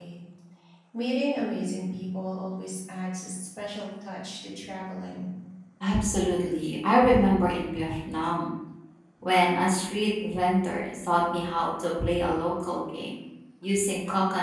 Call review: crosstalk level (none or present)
none